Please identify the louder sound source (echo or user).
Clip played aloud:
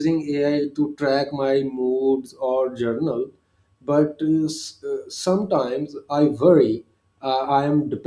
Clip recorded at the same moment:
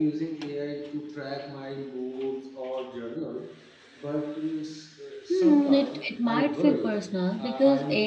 user